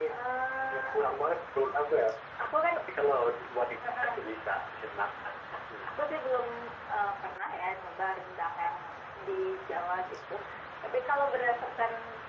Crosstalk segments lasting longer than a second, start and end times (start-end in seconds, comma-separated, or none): none